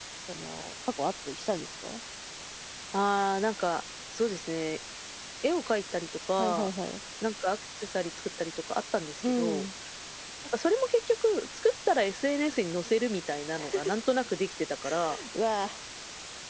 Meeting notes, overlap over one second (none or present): none